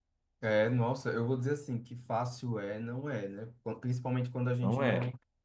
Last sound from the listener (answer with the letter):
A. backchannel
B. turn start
A